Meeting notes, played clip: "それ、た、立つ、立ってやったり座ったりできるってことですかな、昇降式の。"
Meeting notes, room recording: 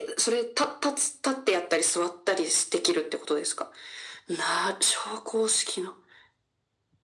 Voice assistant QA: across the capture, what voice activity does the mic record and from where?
echo only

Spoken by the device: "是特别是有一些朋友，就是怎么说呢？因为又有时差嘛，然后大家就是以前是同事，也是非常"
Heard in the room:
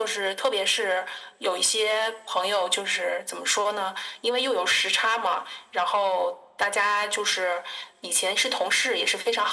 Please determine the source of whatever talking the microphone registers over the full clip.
echo only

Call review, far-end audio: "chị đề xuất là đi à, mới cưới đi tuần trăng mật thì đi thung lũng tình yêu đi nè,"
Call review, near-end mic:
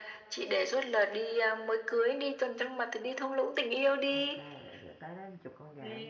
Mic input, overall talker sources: both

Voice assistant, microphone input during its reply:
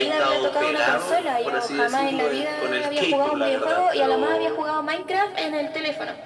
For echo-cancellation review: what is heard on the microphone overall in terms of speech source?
echo only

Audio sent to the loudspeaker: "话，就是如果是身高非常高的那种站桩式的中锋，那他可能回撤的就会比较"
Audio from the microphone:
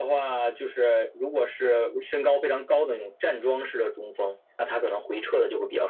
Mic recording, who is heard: echo only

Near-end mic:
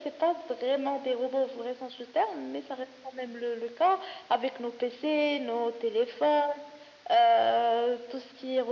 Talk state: echo only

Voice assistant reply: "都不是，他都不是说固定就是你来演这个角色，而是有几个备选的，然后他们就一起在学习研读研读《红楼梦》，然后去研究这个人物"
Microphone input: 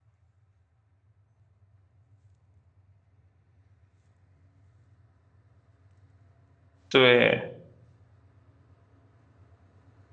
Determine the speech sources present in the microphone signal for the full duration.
user only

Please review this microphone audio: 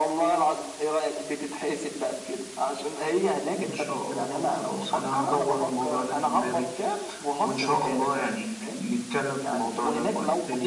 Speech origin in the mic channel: echo only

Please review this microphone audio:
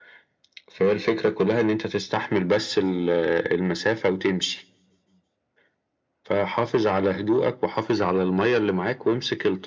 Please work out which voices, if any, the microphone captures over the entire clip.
echo only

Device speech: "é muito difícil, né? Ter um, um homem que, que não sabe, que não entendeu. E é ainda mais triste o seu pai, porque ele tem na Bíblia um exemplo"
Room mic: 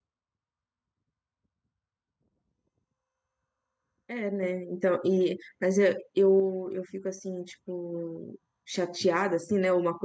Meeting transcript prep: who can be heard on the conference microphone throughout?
user only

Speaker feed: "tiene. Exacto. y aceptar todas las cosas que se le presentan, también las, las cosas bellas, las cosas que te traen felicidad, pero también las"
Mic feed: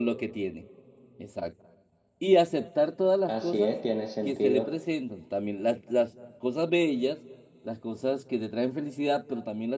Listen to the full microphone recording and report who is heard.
both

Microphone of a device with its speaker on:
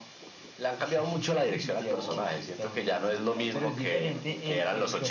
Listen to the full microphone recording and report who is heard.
both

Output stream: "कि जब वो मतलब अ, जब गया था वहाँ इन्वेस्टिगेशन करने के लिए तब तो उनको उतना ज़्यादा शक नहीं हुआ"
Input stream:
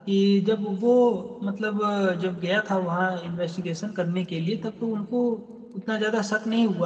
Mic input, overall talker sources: echo only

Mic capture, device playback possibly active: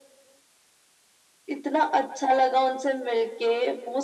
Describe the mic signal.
echo only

